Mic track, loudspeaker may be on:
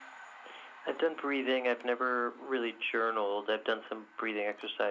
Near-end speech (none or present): none